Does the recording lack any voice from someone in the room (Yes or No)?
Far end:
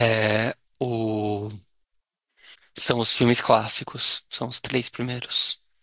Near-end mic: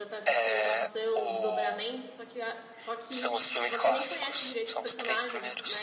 No